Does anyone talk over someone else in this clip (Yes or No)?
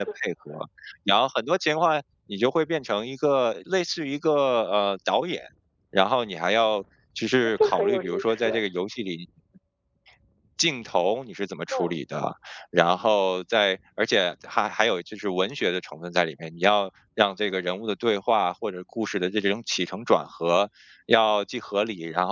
Yes